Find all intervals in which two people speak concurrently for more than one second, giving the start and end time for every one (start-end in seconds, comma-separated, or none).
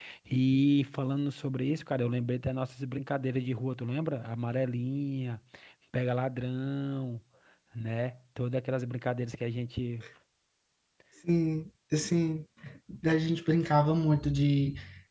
none